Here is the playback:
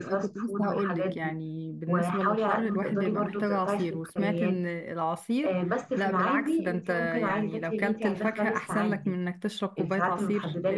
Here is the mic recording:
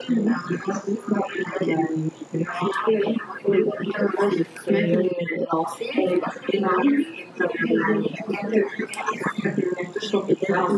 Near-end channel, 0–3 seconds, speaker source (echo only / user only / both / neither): echo only